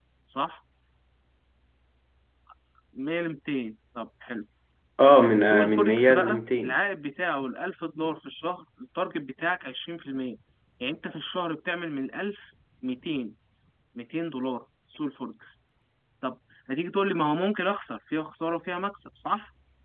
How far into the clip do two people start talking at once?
5.2 s

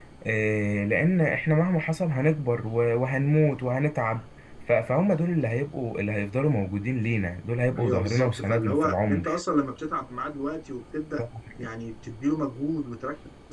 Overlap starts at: 7.8 s

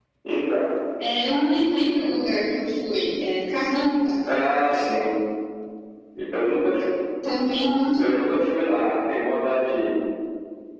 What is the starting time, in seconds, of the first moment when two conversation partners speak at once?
none

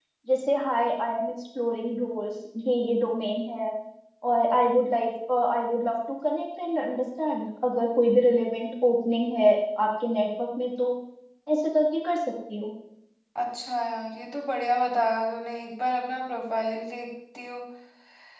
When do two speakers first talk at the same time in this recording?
none

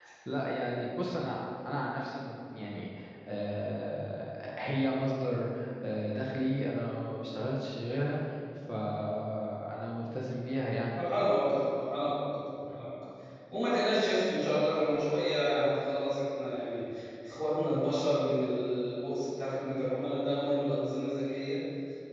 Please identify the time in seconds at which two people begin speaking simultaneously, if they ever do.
none

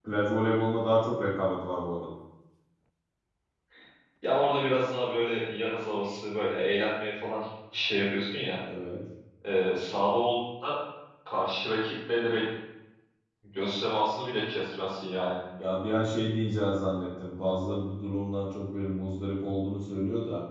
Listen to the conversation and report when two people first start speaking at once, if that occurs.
none

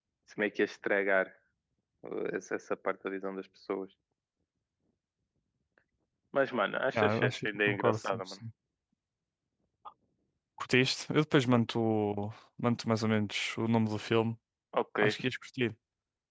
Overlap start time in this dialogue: 6.9 s

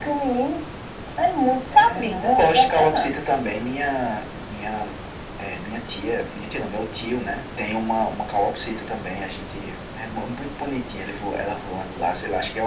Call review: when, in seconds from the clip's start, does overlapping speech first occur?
1.7 s

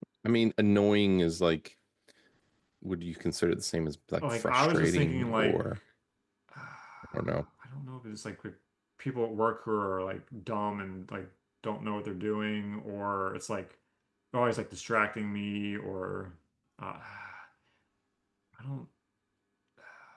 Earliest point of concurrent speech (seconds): 4.2 s

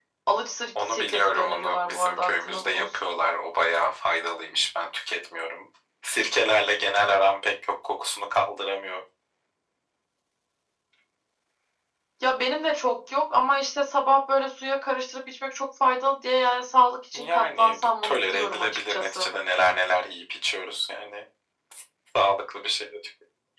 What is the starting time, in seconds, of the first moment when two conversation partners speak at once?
0.8 s

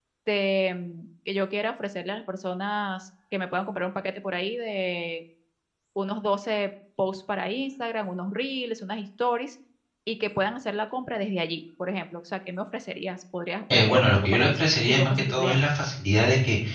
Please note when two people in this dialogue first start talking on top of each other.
13.7 s

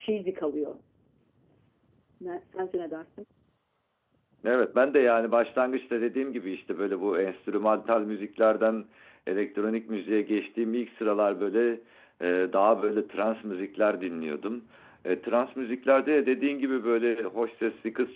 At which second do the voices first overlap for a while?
none

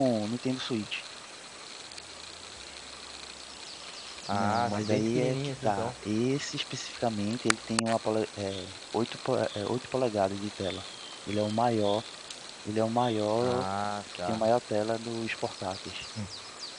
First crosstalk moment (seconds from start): 4.3 s

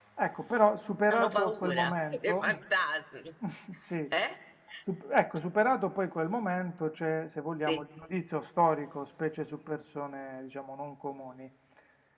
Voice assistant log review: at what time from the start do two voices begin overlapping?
1.1 s

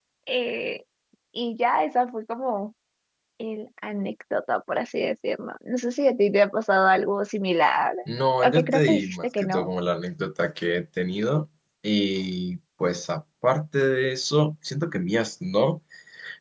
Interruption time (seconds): 8.4 s

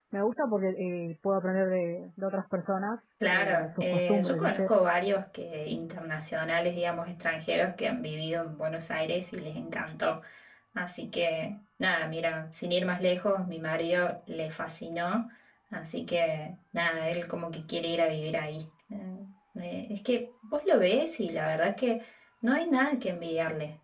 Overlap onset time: 3.2 s

